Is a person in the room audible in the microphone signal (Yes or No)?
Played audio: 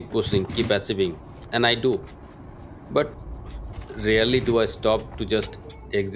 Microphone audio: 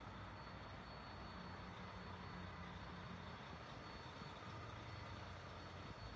No